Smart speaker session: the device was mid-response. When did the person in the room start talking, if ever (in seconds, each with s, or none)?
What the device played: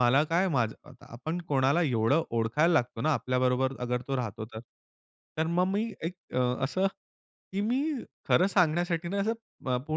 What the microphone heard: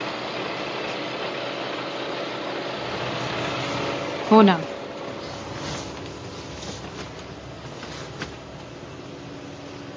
4.3 s